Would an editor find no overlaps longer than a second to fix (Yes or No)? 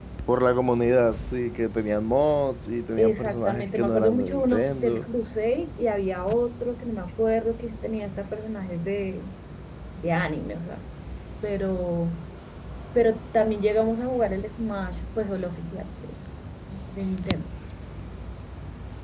No